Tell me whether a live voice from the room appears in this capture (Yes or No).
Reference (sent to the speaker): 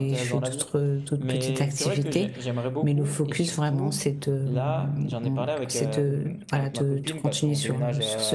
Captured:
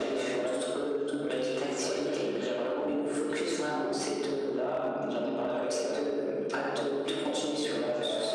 No